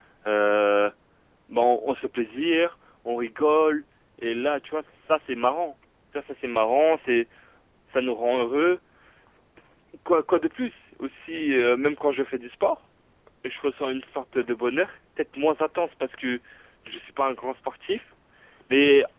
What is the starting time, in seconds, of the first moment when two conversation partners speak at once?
none

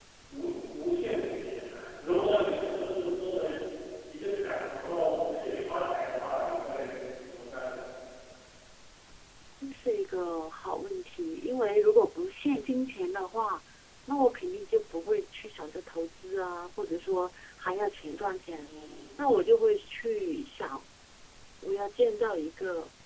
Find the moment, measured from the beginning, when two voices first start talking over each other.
none

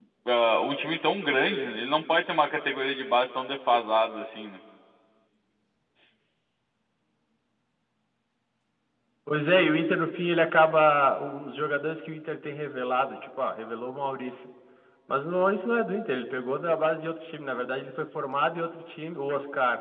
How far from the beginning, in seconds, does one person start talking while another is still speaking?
none

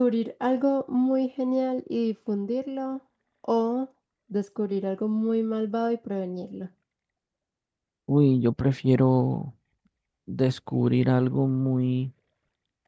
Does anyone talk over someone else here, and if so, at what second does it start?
none

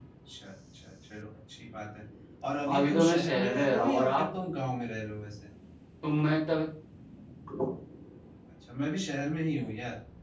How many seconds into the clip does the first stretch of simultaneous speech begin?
3 s

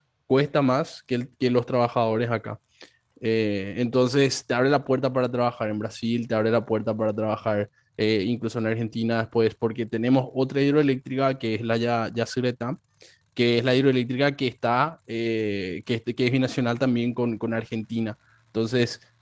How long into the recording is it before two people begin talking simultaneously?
none

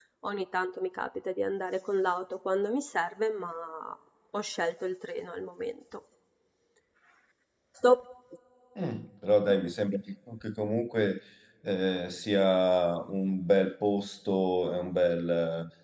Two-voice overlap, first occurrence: none

